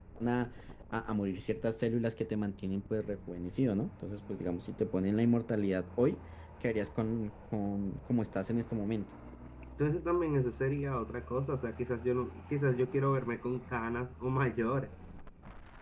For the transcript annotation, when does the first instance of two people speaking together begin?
none

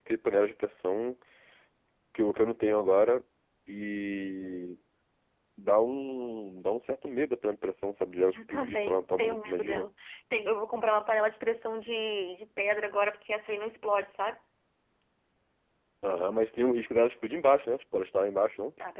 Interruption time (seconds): 8 s

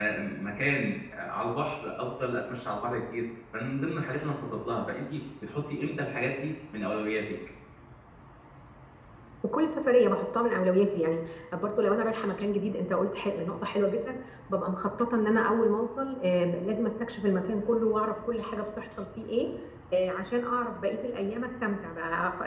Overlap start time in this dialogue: none

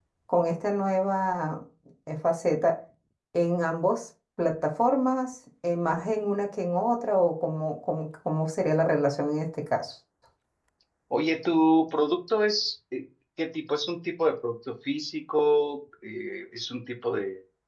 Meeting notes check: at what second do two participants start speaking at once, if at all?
none

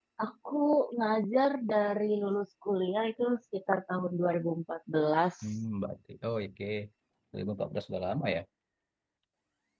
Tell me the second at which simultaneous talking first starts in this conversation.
none

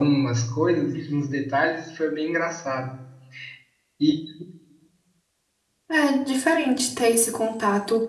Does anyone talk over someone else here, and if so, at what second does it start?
none

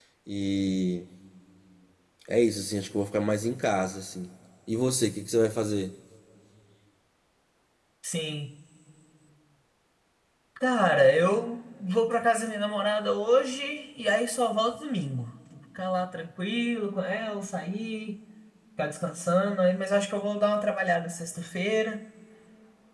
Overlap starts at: none

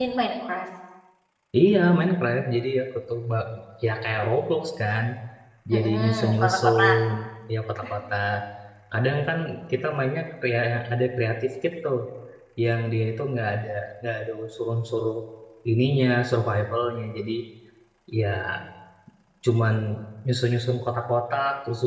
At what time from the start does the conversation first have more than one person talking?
6 s

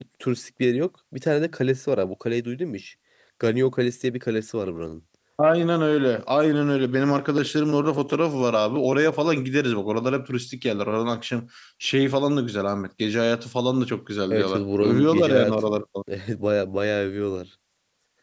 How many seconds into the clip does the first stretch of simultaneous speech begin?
14 s

